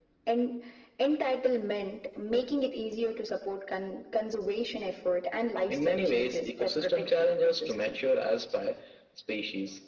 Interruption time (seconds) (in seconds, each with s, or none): 5.7 s